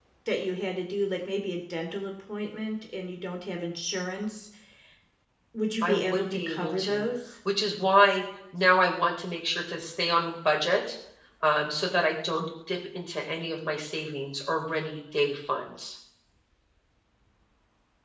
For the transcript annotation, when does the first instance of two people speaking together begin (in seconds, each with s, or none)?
5.8 s